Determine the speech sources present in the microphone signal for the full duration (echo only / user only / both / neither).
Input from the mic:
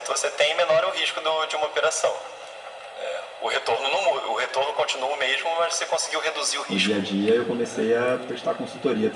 both